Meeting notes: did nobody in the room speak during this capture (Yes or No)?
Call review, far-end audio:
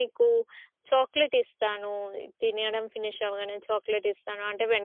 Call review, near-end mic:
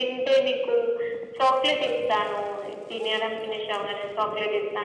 Yes